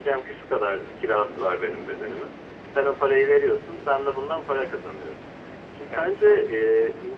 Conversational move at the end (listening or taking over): listening